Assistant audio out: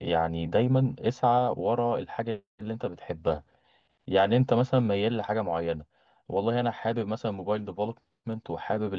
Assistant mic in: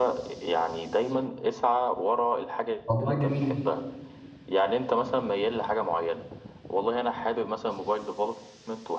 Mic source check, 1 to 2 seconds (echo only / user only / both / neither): echo only